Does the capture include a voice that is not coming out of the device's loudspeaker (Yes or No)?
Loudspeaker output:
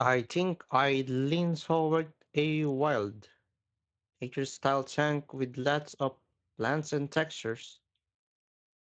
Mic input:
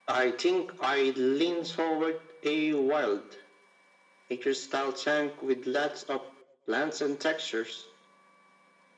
No